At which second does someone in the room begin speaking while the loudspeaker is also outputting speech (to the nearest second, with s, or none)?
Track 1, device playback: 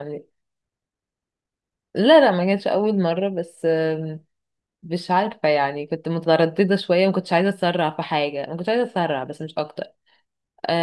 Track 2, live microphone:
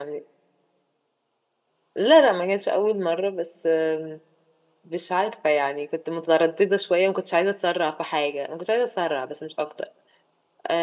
none